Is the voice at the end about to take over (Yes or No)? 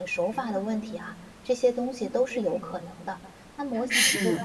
No